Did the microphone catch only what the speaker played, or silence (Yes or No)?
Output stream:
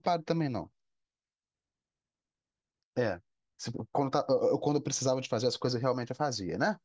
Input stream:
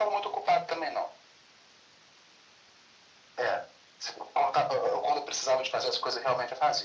Yes